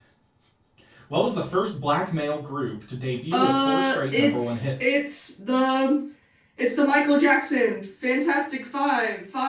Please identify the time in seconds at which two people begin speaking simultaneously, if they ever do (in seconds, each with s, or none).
3.3 s